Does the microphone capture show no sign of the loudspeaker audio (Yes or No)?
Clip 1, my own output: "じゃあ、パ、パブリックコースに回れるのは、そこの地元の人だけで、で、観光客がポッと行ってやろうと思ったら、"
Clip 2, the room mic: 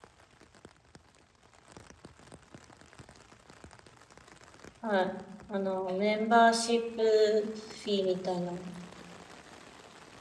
Yes